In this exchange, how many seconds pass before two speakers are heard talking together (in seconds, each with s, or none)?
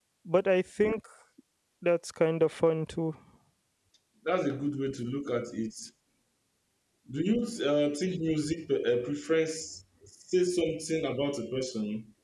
none